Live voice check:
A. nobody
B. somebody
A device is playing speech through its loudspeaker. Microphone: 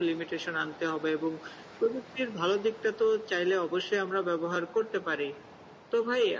A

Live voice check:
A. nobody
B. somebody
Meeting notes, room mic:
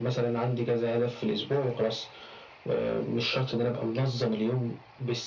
A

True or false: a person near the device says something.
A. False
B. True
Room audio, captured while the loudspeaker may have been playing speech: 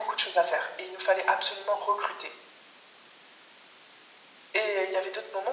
A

